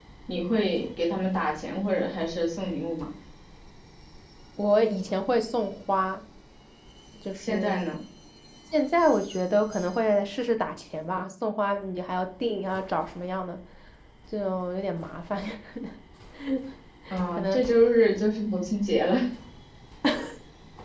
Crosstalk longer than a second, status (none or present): none